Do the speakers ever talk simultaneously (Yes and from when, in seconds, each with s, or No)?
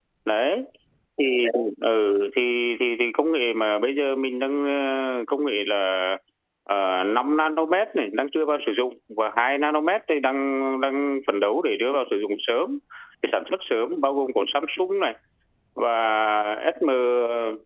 No